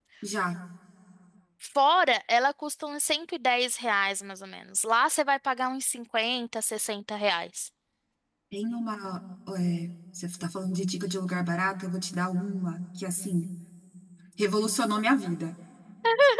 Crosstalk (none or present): none